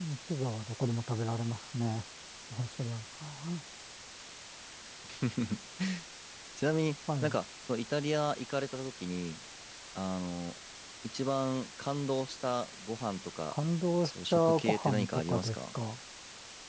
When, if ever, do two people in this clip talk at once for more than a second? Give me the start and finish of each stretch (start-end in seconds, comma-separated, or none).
14.0-15.6